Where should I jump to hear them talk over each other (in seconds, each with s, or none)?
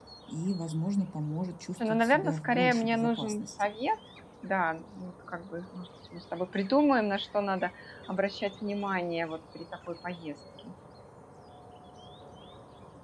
1.8 s